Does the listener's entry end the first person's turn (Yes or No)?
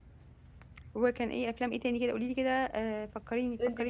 Yes